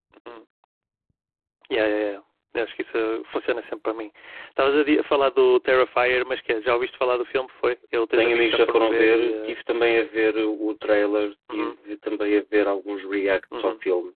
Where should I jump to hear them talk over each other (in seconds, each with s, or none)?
8.2 s